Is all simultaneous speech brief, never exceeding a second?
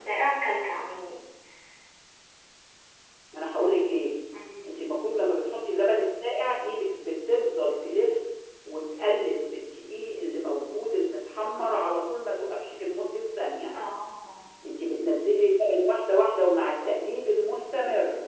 Yes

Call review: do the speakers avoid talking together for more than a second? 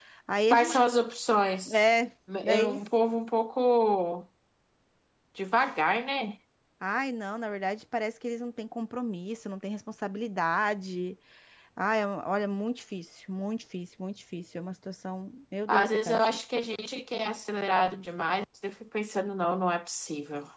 Yes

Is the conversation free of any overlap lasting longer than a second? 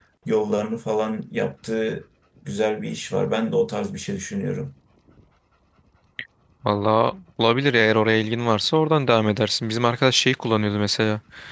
Yes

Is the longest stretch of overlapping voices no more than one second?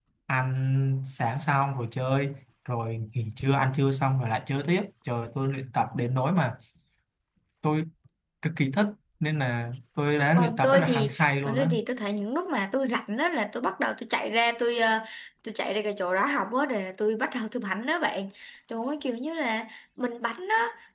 No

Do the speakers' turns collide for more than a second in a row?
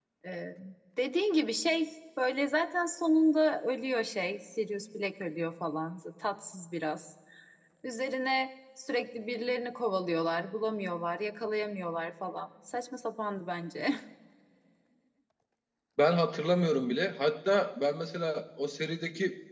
No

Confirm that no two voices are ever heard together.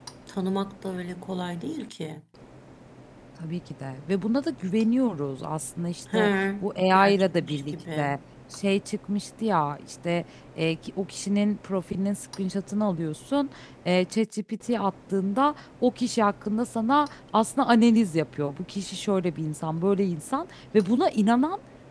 No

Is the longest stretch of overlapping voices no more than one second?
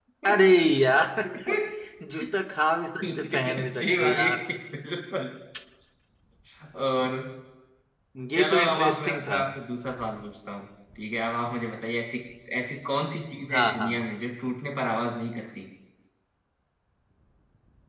No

